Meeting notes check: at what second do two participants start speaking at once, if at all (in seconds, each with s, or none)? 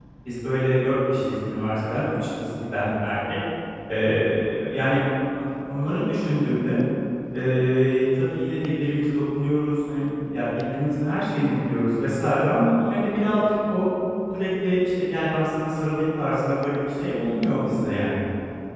none